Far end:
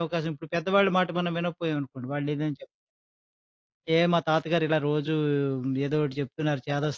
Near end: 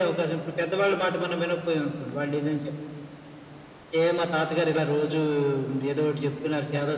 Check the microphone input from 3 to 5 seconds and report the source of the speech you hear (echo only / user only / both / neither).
echo only